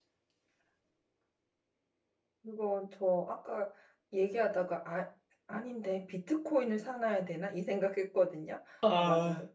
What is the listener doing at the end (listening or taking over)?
listening